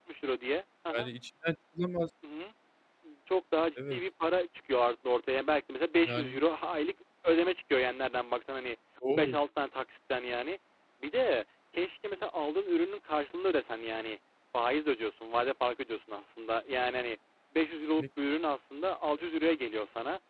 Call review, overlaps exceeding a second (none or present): none